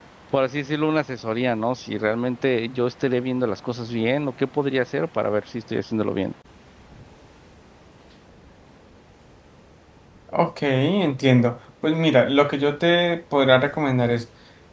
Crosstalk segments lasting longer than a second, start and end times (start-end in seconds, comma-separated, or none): none